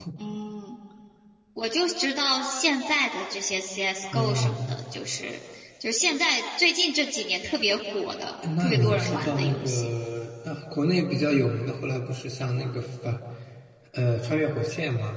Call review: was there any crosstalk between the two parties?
Yes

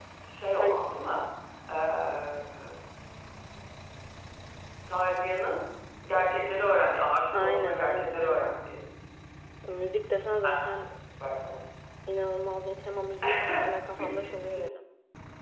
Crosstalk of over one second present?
Yes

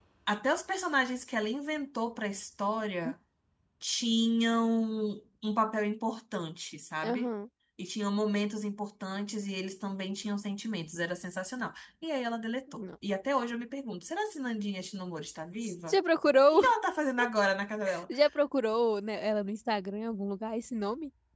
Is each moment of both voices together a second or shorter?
Yes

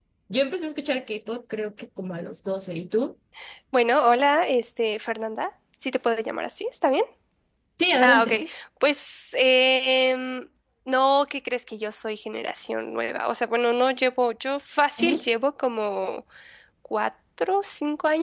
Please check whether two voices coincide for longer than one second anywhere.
No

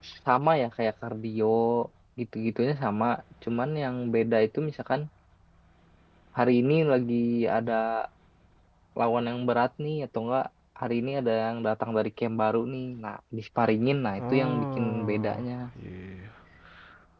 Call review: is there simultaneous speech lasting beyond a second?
Yes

